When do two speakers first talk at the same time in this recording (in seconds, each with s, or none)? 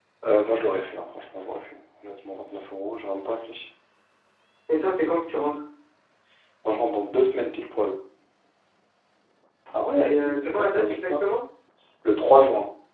10.0 s